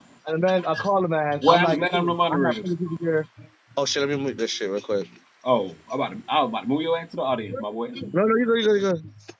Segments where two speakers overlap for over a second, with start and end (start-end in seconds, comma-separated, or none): 1.4-2.6